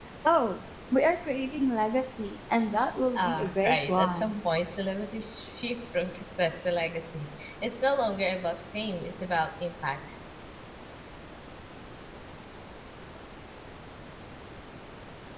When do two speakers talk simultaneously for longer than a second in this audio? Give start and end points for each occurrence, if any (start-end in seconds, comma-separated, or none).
3.2-4.4